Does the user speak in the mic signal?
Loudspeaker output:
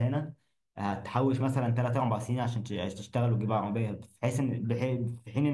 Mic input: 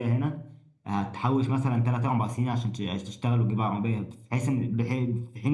No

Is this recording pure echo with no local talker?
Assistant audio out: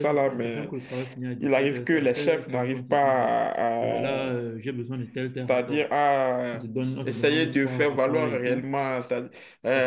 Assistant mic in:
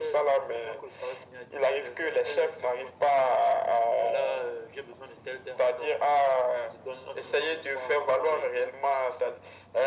Yes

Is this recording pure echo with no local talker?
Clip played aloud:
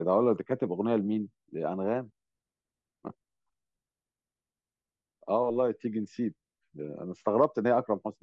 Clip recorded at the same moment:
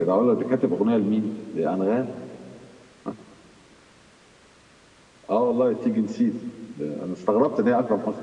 Yes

